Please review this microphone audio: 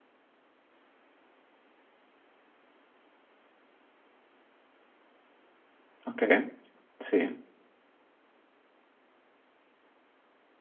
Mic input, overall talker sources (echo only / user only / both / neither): user only